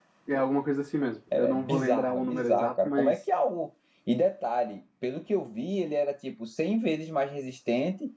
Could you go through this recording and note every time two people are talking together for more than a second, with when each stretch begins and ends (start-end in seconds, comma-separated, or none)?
1.3-3.2